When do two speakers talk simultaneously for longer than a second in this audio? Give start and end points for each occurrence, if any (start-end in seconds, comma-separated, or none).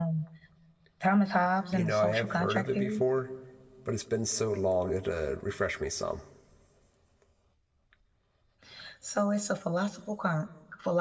1.7-3.0